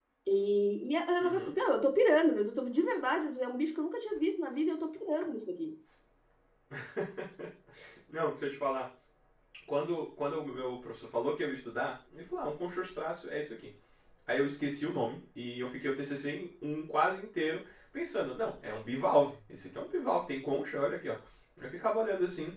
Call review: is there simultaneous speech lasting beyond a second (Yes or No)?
No